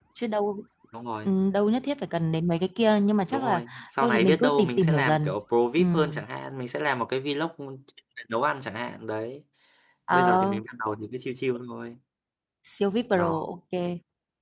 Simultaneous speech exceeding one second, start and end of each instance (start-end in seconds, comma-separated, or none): 3.3-5.3